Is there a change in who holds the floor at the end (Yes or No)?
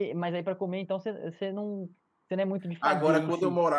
Yes